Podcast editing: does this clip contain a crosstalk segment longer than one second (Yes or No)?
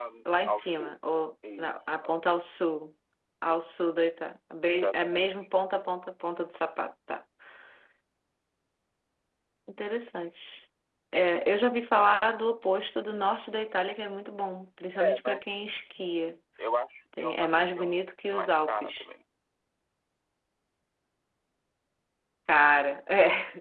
Yes